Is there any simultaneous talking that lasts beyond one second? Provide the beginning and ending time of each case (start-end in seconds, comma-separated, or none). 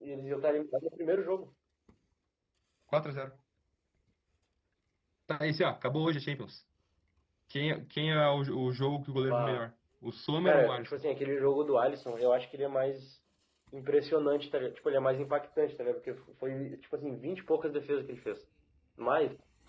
none